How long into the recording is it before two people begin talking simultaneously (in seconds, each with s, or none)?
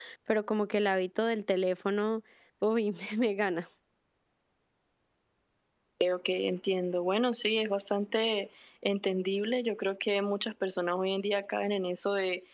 none